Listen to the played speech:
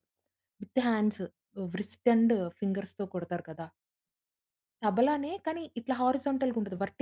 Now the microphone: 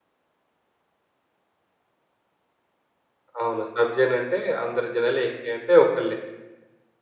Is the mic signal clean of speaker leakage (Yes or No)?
Yes